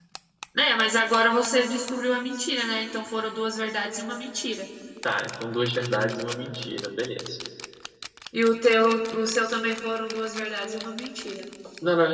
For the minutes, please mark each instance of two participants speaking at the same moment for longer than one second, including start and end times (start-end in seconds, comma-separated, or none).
none